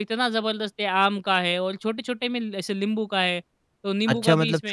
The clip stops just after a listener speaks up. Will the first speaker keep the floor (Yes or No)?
No